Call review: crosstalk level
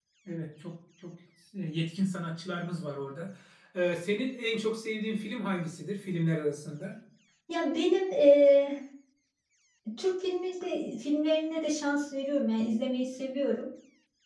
none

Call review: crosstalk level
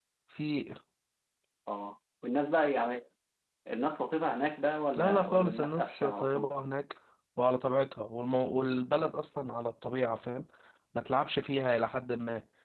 present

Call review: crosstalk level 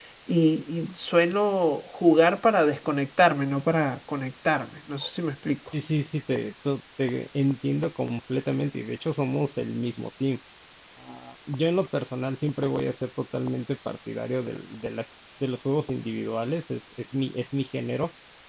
none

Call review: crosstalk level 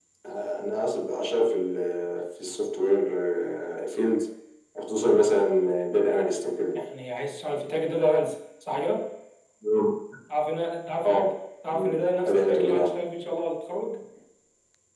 present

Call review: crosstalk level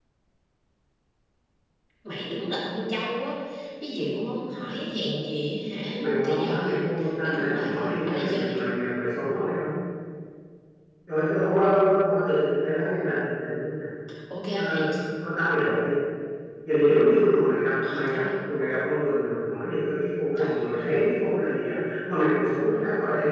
present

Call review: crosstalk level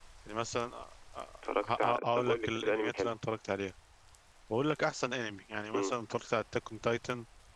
present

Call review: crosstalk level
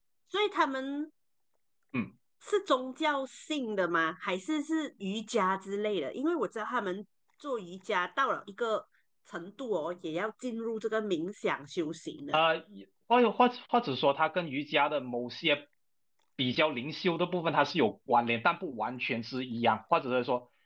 none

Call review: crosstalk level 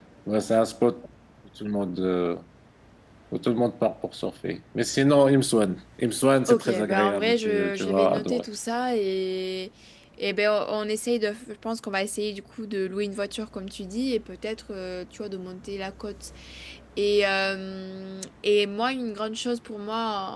present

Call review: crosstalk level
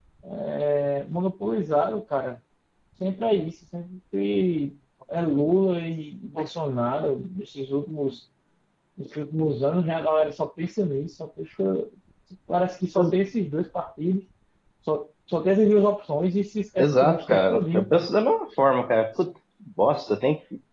present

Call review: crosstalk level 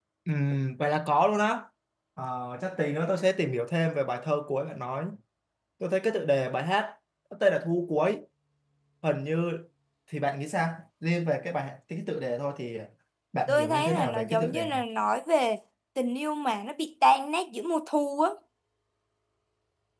present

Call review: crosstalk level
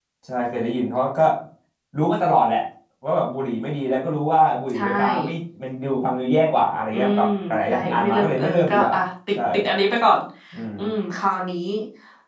present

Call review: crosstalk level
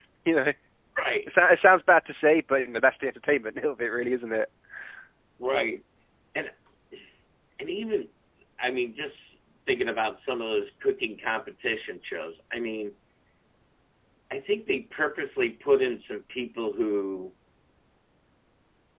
none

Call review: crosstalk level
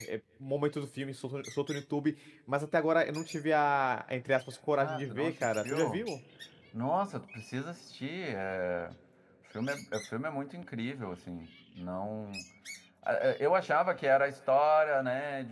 present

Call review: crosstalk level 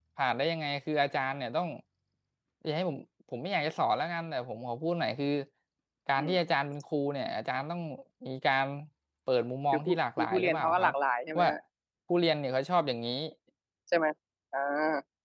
present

